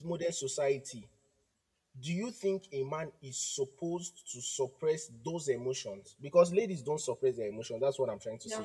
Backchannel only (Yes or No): No